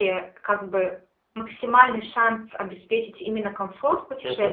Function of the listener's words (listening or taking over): listening